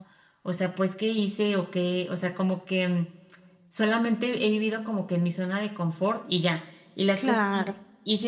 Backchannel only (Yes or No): Yes